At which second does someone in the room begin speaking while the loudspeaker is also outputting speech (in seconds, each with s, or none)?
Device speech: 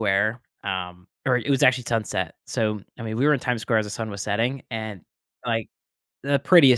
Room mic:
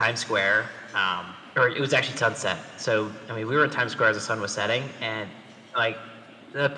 none